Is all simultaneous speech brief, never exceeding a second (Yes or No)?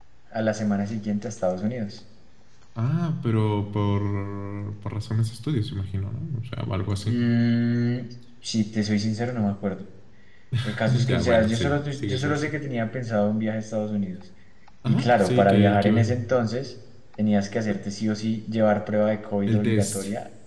No